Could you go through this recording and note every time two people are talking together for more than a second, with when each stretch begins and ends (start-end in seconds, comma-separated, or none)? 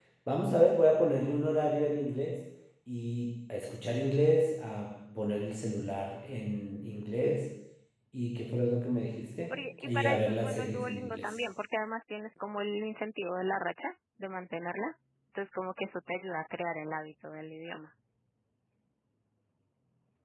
9.5-11.3